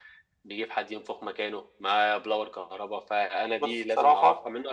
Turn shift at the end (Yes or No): No